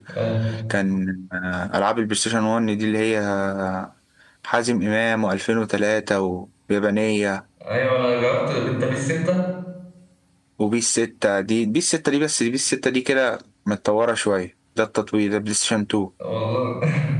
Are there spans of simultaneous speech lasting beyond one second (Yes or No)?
No